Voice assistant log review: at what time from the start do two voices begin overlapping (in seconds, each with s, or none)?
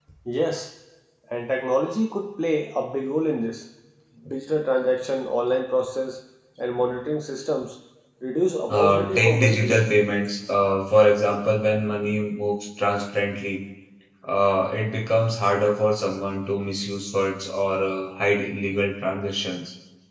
8.7 s